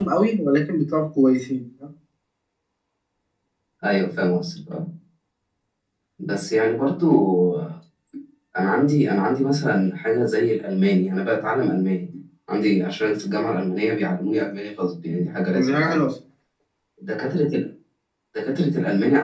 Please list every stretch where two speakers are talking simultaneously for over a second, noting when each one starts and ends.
none

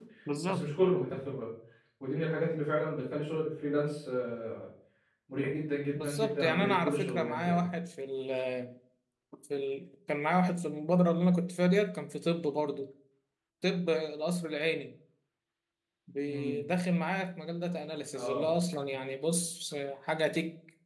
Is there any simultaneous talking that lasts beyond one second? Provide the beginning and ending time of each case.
6.0-7.6

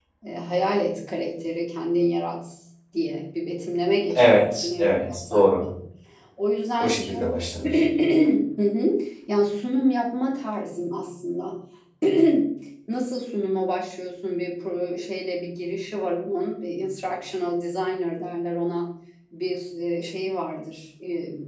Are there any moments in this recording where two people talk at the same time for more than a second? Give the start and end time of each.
4.1-5.5

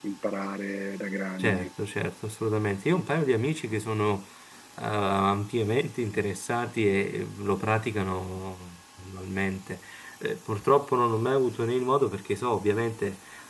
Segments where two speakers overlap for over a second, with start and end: none

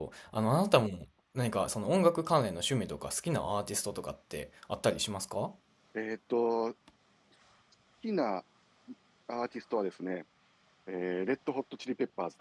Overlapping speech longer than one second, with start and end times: none

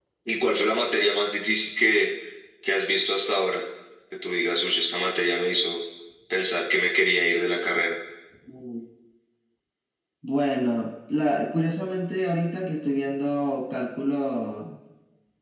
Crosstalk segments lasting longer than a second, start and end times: none

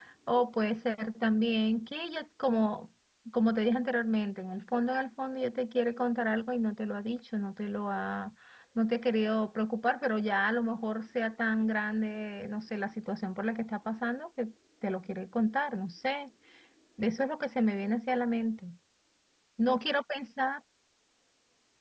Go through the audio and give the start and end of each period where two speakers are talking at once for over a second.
none

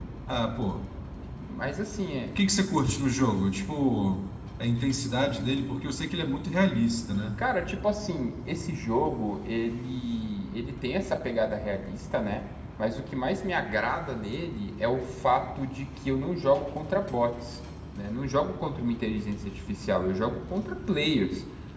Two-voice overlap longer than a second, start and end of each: none

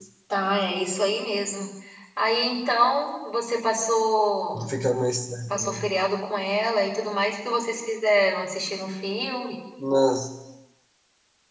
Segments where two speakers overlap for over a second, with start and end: none

